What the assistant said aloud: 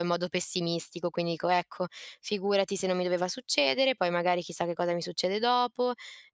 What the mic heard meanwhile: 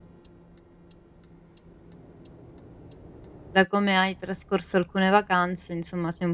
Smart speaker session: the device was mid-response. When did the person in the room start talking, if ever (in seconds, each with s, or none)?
3.5 s